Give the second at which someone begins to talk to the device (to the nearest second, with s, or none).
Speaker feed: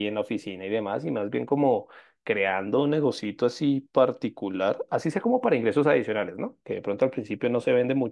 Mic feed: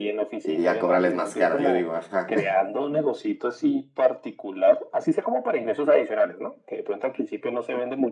0 s